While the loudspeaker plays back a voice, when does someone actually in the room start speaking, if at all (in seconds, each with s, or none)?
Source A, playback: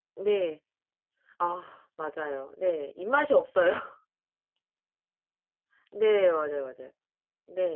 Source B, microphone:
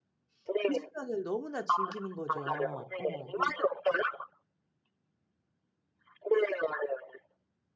0.4 s